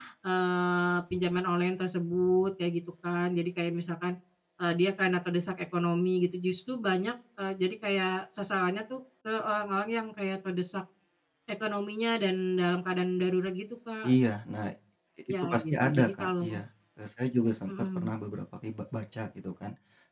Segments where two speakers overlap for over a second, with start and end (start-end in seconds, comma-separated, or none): 15.4-16.6